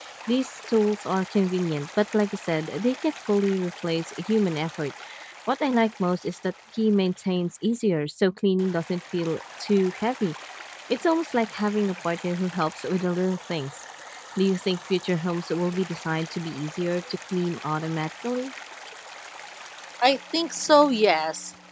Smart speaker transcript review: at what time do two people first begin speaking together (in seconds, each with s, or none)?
none